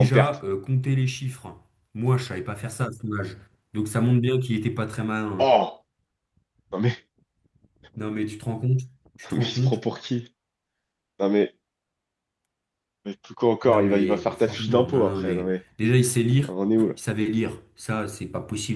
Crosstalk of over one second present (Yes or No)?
Yes